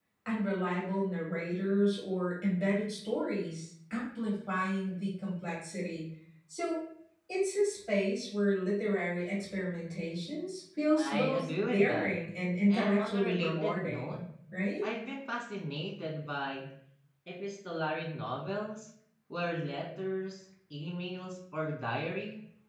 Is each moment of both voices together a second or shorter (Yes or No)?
No